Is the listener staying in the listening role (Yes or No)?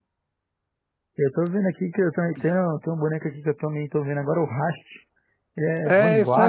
No